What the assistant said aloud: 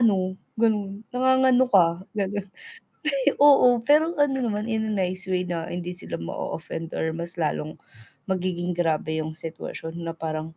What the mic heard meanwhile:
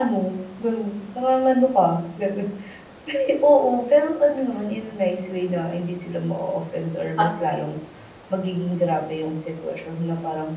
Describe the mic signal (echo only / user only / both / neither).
both